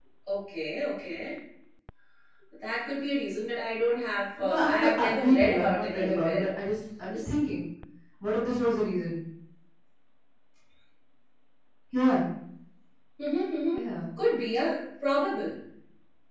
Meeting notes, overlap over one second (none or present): present